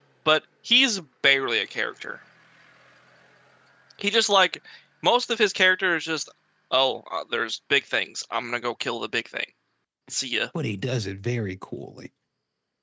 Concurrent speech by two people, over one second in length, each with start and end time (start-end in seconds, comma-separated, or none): none